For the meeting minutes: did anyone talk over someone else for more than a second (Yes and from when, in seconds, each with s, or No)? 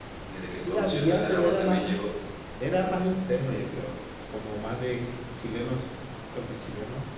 Yes, from 0.6 s